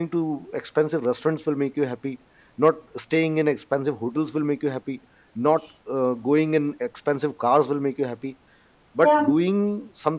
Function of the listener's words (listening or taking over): listening